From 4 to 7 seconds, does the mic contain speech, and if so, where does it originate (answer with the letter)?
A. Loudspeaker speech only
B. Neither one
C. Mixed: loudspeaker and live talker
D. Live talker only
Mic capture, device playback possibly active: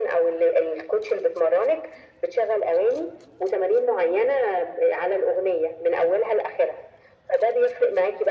A